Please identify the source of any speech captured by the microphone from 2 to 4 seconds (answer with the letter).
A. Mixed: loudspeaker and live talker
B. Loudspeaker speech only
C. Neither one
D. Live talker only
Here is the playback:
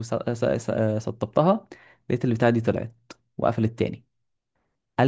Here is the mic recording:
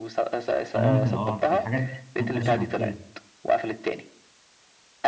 A